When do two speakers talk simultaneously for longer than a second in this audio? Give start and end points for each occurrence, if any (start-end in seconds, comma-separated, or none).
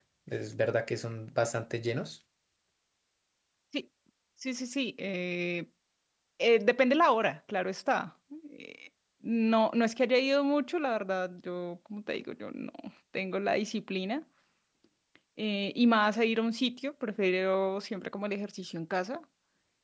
none